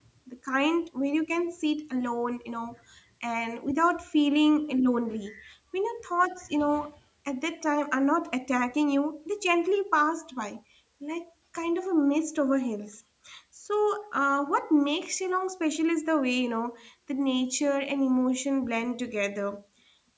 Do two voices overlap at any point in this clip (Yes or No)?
No